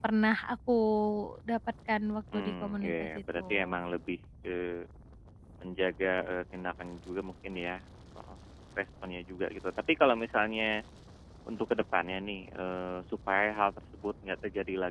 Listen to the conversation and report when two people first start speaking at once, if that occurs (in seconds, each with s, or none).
2.3 s